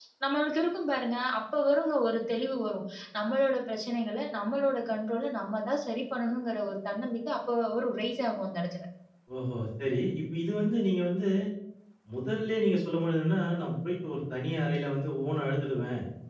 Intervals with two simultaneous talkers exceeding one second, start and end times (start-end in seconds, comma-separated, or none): none